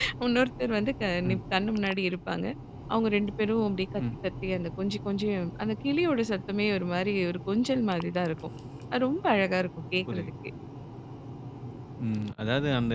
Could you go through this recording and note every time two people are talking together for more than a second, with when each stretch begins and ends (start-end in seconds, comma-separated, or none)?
none